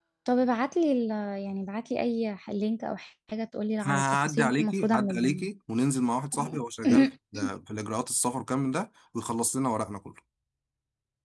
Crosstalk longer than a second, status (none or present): present